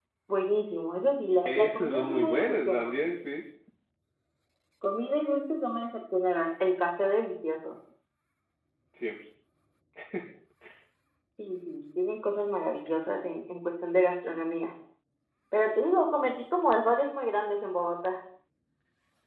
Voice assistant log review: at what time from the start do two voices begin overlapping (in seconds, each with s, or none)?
1.4 s